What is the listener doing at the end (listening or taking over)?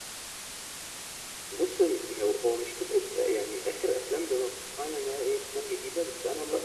listening